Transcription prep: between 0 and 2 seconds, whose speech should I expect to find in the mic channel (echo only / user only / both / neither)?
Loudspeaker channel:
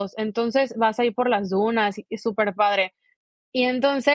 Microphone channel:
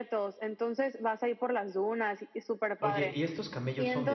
echo only